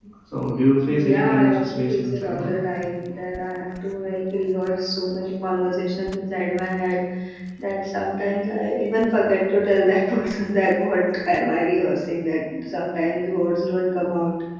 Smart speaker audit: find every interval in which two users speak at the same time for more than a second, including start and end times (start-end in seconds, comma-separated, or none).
0.8-2.5